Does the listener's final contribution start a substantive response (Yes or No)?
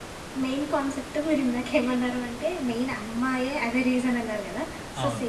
No